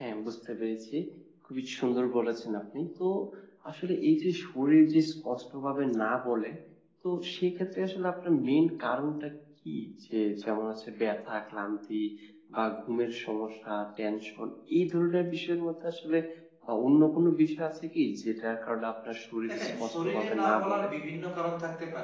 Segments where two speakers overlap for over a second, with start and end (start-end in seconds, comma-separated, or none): 19.5-20.9